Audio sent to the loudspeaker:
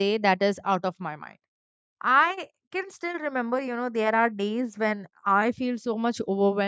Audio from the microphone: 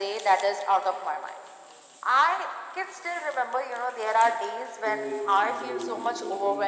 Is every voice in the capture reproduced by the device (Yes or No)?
No